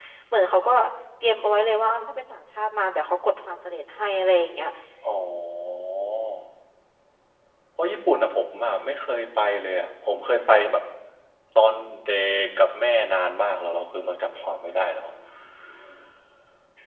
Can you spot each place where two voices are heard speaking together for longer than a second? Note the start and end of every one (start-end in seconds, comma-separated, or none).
none